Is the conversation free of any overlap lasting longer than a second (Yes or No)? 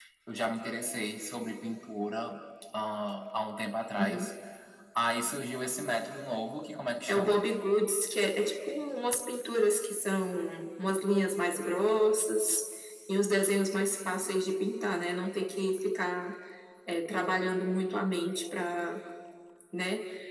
Yes